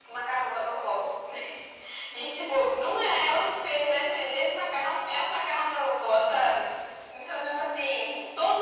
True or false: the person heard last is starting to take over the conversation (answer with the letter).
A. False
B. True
A